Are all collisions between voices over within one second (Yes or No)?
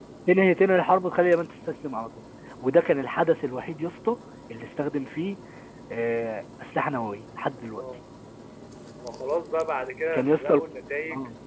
Yes